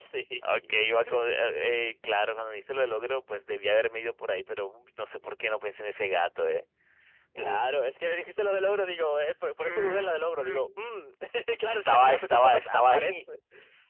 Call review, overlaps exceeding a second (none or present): present